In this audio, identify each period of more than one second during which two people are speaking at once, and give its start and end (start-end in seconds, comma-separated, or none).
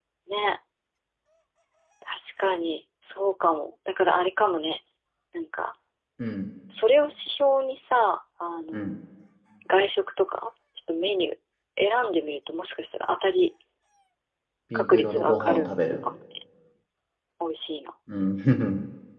14.7-16.0